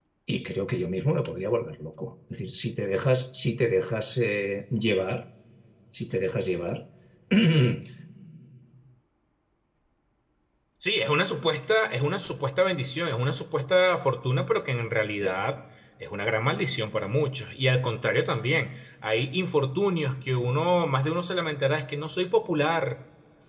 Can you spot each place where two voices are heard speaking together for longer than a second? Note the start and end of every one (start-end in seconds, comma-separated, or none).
none